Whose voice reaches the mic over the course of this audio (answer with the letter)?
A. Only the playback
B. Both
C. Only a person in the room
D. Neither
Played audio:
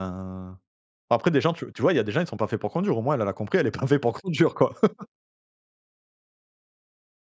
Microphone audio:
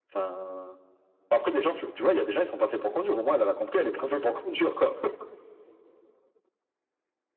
A